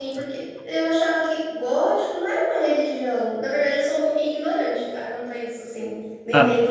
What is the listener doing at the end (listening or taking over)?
taking over